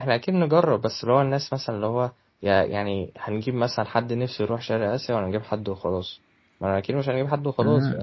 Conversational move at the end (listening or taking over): taking over